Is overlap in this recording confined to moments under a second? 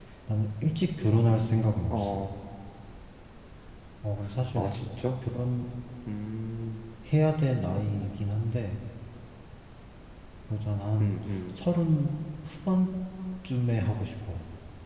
Yes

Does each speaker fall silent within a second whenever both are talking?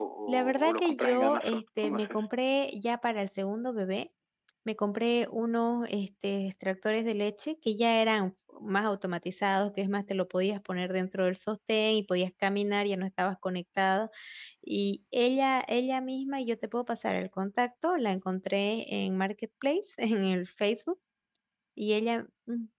No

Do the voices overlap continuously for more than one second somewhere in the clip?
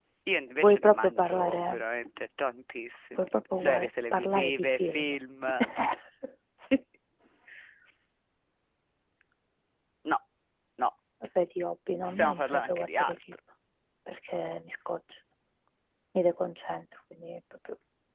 Yes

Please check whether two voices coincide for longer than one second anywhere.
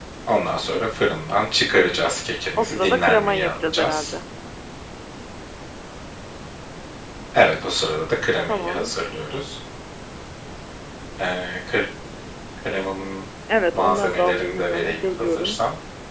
Yes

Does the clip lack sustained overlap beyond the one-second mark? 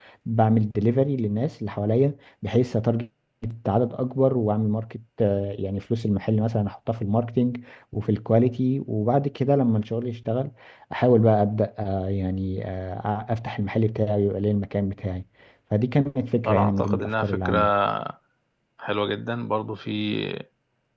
No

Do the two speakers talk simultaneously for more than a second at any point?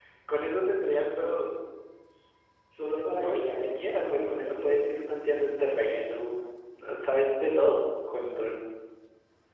Yes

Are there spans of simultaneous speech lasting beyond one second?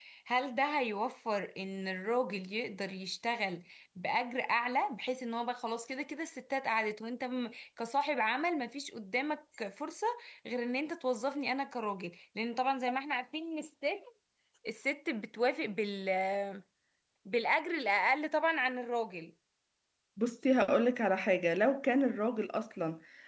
No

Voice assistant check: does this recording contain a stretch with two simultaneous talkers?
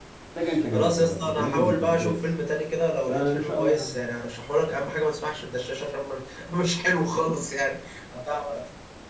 Yes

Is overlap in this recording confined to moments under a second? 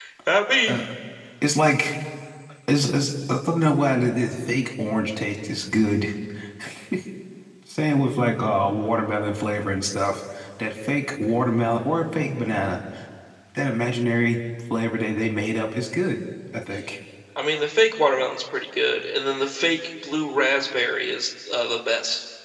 Yes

